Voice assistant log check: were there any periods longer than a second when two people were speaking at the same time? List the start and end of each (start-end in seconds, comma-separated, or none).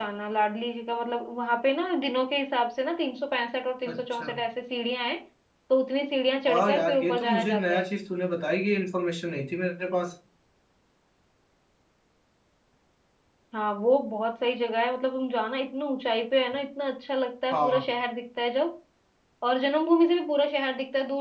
6.5-7.8